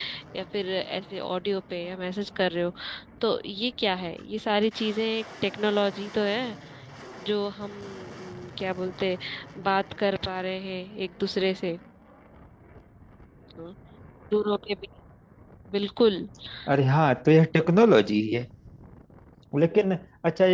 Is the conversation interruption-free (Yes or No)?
Yes